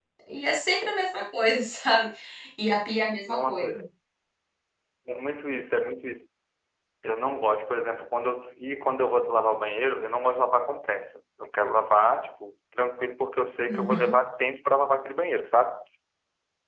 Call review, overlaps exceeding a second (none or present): none